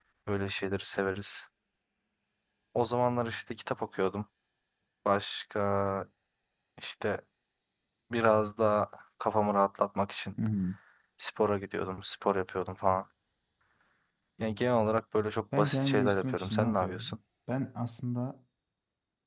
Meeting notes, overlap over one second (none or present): present